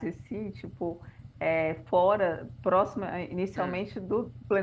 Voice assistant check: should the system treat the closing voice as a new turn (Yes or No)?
No